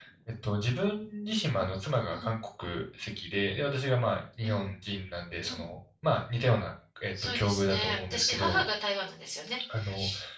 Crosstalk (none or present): present